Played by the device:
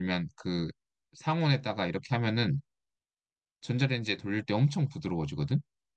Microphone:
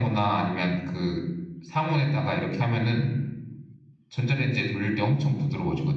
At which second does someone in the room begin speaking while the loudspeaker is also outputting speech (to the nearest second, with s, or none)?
none